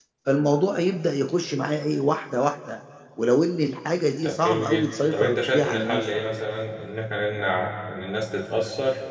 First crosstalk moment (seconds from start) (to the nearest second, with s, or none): 4 s